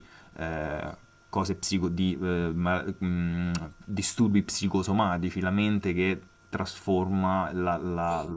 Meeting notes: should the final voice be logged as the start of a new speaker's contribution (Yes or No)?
Yes